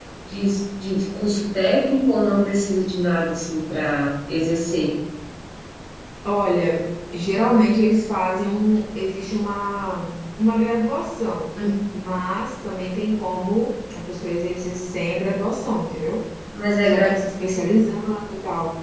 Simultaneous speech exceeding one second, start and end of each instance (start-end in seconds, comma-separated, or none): none